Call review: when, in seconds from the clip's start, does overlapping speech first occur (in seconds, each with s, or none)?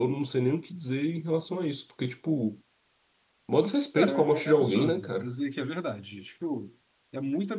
4.0 s